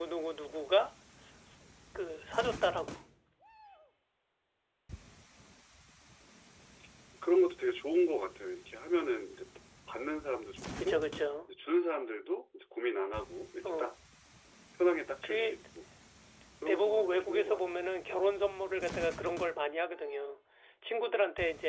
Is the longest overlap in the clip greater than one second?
Yes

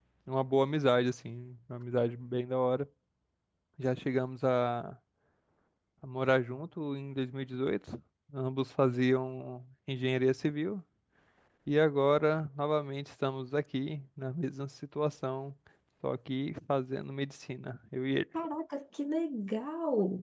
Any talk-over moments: No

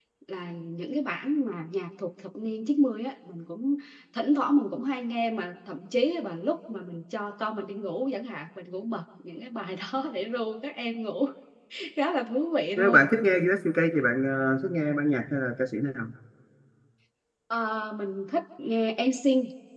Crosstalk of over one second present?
No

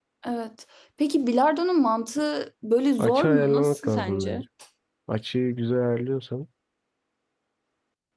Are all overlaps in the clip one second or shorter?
No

